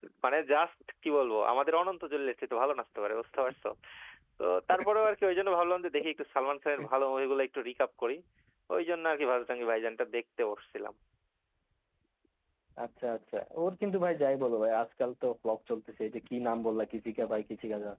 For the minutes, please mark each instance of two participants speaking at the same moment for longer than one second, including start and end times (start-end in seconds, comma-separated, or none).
none